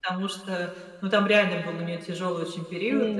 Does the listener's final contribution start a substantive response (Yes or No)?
No